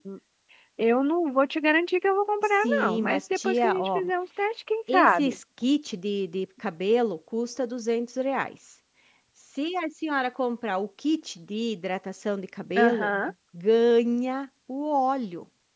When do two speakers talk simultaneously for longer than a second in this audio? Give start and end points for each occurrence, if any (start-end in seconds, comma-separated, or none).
2.4-4.0